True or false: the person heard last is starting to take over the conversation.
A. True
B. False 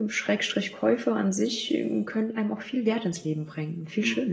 A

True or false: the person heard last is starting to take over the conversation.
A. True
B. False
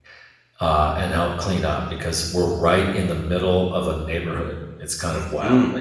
A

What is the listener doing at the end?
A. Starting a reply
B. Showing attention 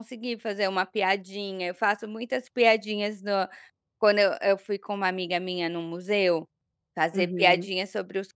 B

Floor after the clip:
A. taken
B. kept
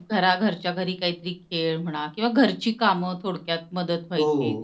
A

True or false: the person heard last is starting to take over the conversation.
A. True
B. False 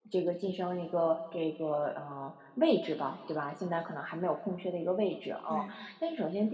B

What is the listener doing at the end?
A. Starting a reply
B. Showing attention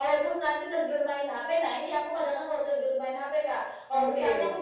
B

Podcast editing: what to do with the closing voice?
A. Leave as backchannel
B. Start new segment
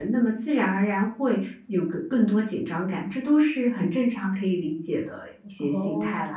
B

